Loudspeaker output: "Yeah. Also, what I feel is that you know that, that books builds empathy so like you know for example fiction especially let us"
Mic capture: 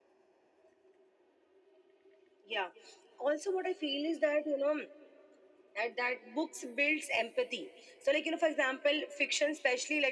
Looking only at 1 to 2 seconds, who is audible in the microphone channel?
neither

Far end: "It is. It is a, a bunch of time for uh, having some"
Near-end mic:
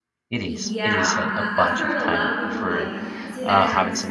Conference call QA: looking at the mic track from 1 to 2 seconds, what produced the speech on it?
both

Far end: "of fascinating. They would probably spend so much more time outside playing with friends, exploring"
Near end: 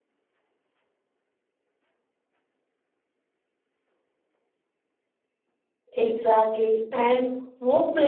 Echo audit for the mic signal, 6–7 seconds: user only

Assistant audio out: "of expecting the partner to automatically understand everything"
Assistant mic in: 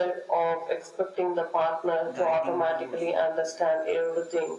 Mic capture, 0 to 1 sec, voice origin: echo only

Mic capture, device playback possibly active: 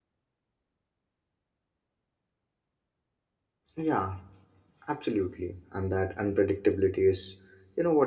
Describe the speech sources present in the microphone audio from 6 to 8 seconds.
user only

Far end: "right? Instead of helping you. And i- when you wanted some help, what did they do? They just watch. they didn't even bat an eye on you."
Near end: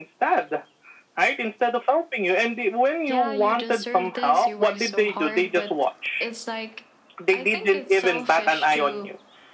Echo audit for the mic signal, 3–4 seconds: both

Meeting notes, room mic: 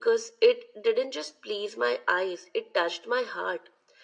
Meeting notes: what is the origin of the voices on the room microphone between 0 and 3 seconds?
echo only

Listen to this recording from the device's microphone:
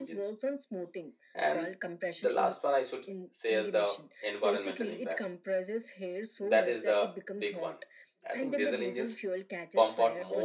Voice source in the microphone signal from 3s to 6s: both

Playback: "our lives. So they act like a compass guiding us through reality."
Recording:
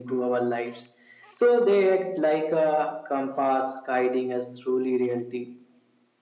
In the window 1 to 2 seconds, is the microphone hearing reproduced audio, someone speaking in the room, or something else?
echo only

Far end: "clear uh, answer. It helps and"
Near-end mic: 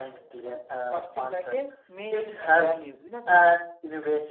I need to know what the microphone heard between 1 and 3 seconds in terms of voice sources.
both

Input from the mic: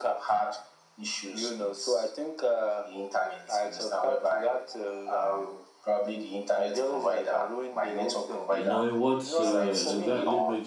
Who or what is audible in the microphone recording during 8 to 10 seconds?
both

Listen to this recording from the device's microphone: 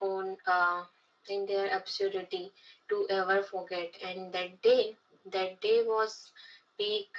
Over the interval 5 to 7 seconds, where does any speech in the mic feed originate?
echo only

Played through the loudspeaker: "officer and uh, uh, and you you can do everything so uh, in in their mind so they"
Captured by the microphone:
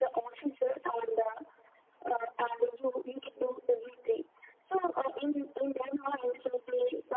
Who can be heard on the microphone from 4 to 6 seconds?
echo only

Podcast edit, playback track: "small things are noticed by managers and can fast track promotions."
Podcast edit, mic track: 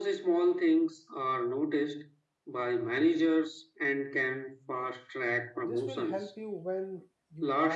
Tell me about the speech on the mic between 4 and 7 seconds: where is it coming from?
both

